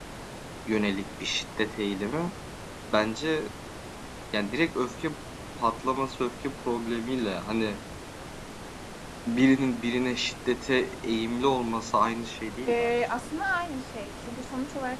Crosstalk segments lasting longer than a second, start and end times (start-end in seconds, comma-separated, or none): none